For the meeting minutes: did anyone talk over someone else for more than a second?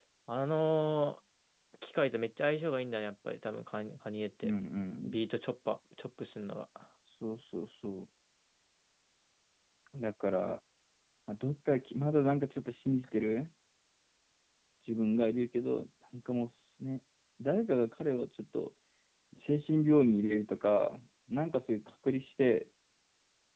No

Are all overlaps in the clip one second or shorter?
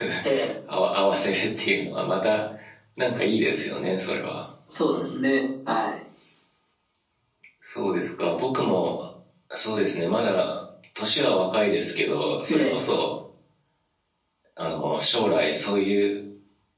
Yes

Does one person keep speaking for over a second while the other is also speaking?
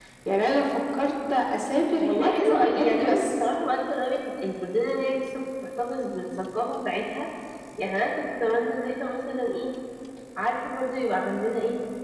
Yes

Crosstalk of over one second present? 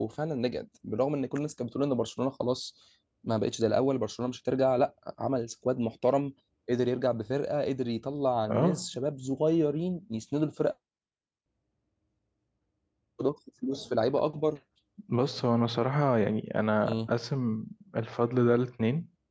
No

